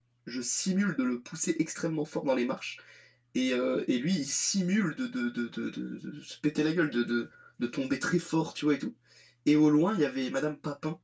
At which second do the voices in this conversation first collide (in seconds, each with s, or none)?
none